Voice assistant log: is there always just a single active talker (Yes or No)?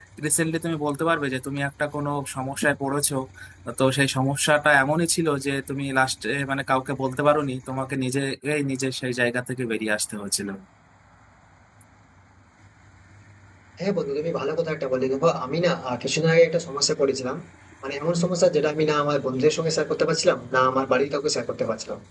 Yes